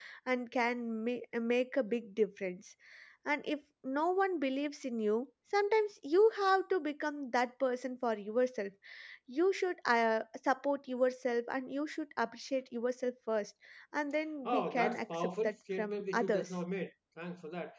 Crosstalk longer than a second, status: present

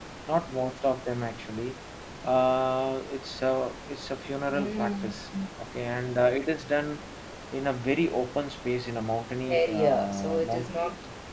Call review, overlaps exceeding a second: present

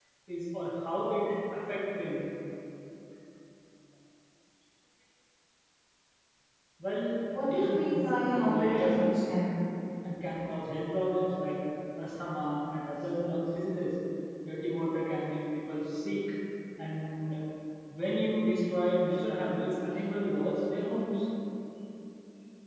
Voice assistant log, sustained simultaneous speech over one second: present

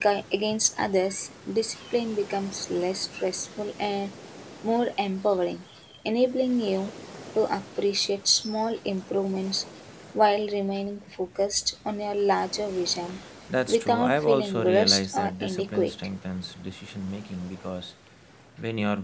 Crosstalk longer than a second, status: present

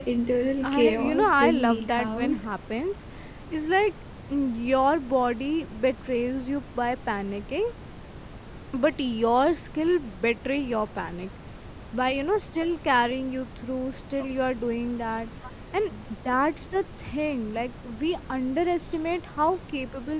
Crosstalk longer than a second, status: present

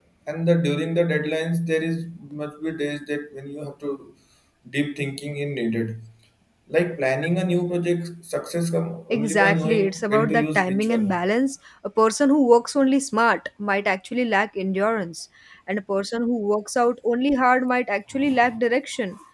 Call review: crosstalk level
present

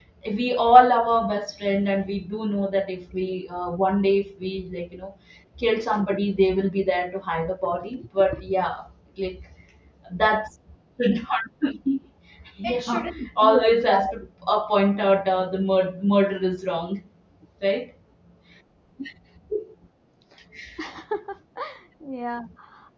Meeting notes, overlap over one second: present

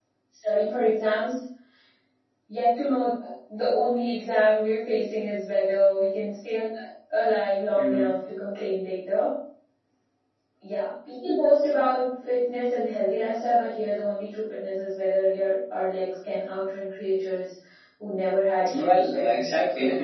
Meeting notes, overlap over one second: present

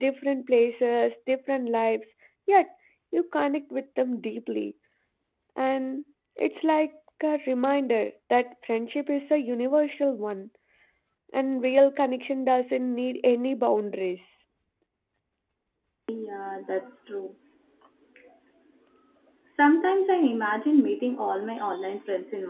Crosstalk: none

